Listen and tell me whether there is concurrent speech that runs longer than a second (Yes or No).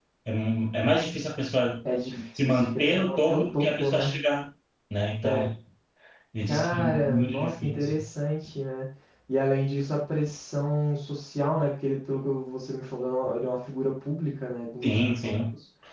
Yes